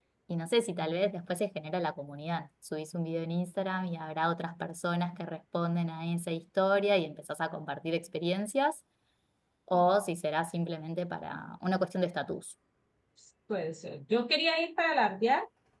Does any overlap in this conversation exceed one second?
No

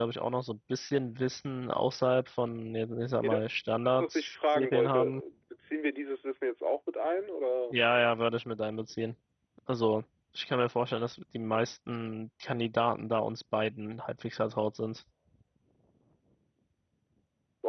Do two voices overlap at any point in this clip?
Yes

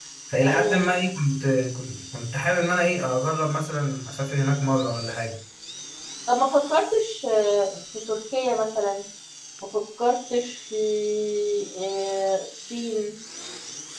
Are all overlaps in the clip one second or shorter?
Yes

